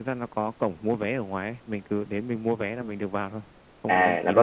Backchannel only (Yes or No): No